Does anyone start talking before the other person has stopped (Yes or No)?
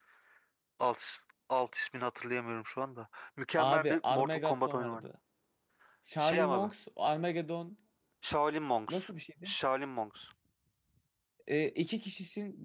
Yes